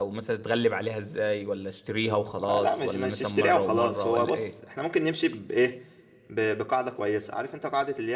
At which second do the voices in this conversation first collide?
2.3 s

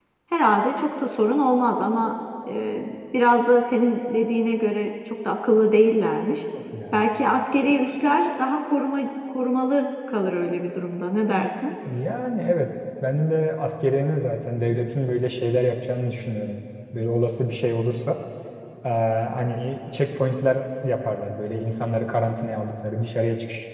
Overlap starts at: none

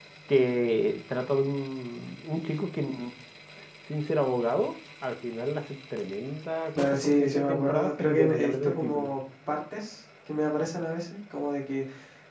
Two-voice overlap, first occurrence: 6.8 s

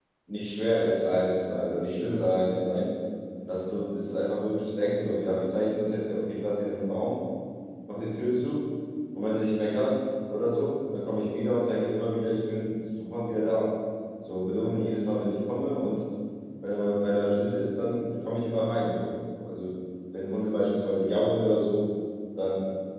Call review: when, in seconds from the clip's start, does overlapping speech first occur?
none

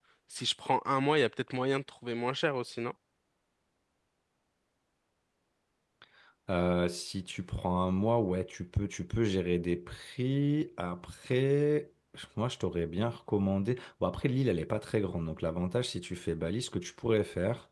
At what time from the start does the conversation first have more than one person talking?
none

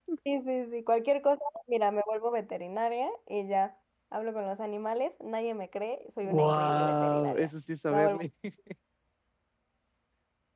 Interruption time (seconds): 6.2 s

